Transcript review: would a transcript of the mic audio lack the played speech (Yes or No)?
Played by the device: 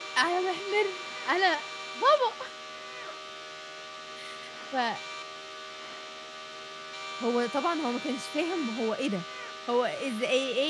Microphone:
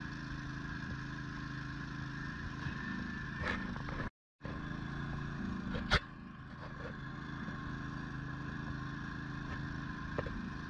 Yes